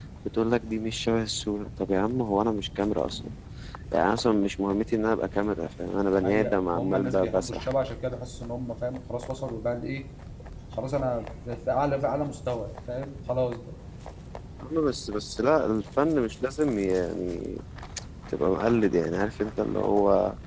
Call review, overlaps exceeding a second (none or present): present